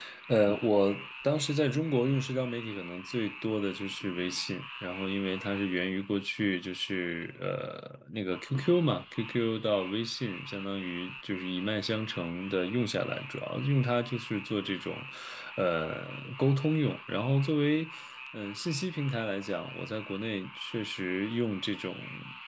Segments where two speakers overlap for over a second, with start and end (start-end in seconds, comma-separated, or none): none